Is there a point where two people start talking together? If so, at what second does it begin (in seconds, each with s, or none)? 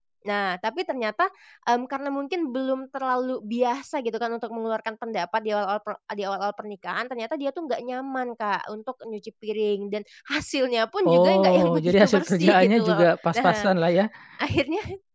11.1 s